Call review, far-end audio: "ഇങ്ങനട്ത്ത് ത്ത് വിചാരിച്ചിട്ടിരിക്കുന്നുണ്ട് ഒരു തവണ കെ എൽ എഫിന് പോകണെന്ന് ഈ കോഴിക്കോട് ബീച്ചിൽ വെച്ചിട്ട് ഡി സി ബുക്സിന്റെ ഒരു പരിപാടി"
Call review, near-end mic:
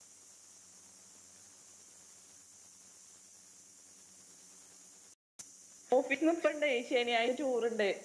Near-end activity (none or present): present